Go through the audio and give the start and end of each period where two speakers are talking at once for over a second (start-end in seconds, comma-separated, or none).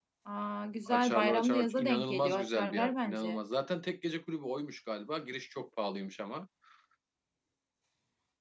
0.9-3.4